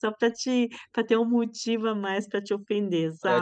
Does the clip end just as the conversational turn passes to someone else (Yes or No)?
Yes